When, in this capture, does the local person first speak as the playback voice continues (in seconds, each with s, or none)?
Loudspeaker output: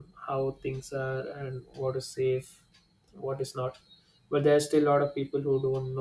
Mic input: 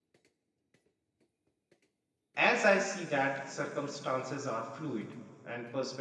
2.4 s